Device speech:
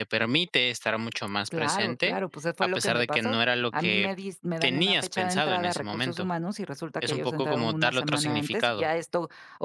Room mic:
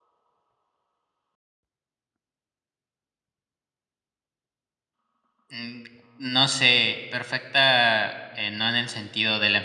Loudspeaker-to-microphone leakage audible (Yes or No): No